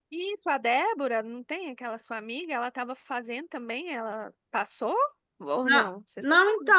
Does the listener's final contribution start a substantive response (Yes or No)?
Yes